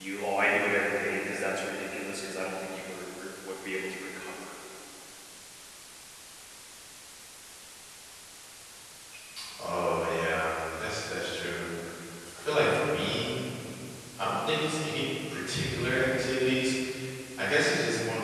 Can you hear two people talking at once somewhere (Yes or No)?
No